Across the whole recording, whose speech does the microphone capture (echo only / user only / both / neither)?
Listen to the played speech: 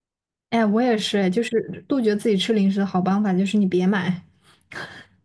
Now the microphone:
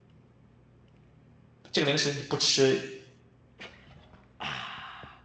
user only